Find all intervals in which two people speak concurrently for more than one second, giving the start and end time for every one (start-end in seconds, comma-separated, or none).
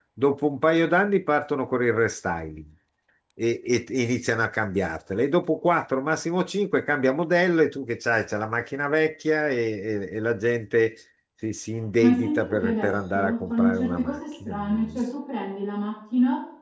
12.0-14.9